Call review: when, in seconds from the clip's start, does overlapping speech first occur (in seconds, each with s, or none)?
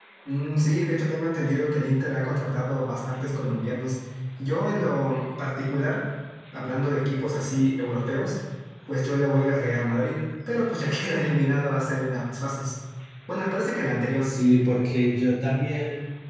none